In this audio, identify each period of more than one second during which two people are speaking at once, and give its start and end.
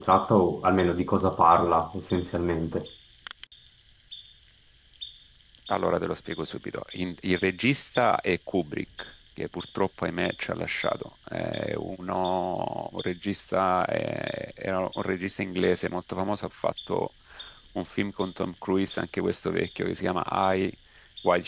none

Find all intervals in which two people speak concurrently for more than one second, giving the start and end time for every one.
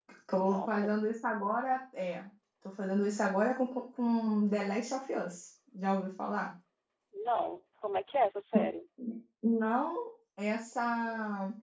none

